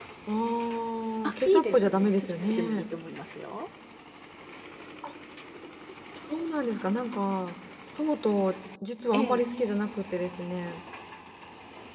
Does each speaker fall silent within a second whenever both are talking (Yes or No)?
No